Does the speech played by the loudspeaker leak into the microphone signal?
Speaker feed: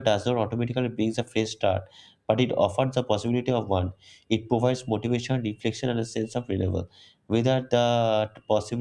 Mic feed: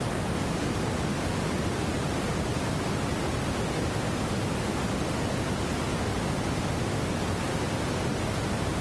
No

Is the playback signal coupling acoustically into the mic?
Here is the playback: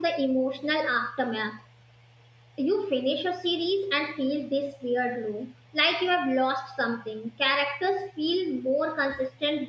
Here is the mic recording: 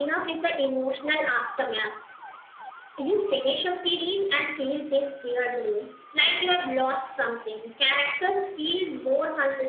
Yes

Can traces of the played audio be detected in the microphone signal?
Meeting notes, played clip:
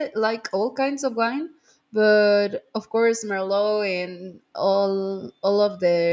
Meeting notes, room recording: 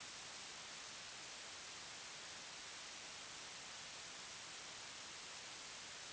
No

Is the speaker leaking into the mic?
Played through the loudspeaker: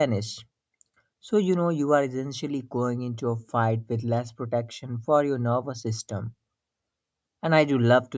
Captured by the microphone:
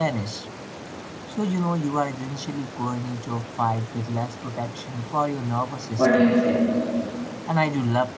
Yes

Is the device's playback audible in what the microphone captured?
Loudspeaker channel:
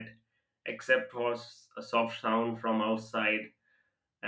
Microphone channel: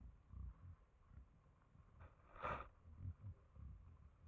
No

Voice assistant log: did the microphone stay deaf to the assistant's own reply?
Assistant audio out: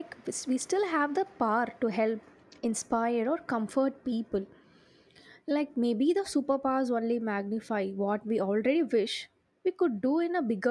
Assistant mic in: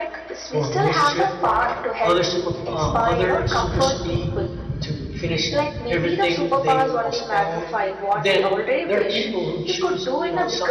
No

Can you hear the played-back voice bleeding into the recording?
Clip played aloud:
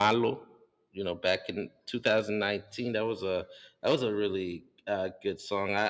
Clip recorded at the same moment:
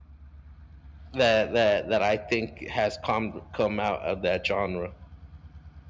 No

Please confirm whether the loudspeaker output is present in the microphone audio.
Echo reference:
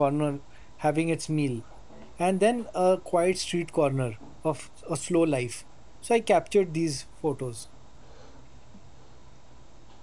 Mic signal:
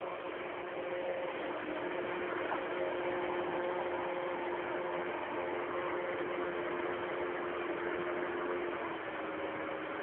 No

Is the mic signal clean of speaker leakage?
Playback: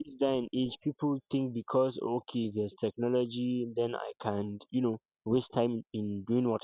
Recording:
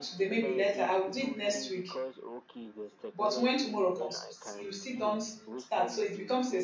No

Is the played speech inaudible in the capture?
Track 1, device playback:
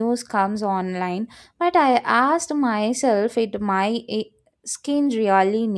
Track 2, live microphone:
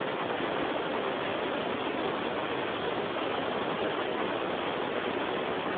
Yes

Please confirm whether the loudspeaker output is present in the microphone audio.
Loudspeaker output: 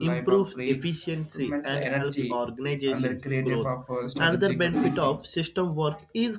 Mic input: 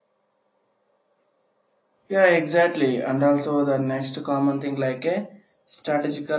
No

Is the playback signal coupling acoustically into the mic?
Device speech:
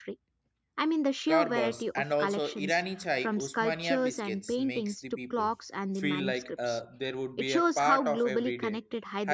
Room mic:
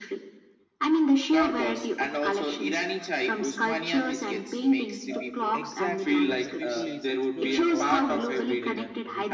Yes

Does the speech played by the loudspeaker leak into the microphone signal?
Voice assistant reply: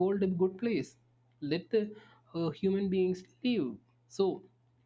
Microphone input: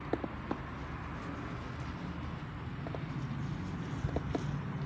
No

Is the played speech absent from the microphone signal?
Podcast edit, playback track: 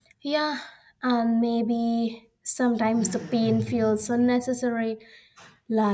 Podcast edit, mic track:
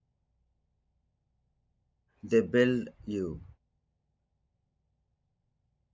Yes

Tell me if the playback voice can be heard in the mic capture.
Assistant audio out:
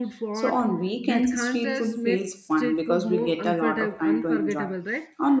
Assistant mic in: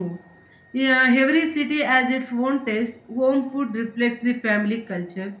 No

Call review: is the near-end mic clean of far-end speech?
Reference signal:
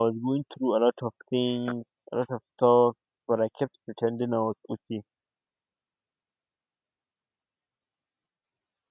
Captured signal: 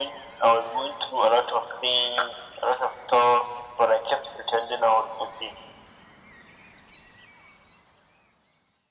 No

